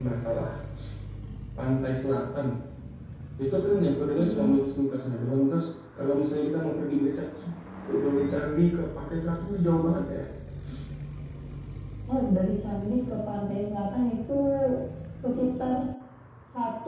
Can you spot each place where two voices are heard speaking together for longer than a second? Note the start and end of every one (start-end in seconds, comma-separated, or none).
none